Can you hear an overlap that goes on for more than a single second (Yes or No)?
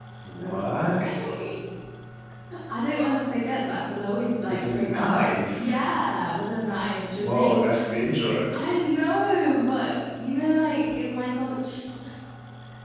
Yes